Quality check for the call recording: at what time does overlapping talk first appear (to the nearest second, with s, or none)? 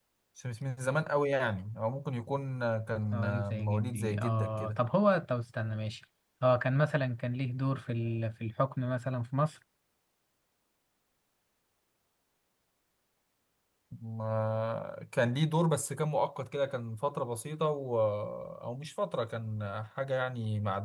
3 s